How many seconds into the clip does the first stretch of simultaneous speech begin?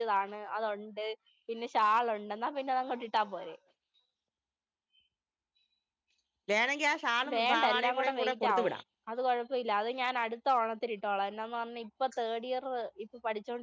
7.3 s

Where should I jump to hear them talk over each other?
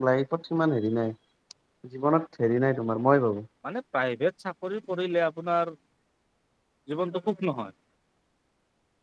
none

